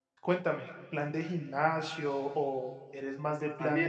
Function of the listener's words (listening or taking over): taking over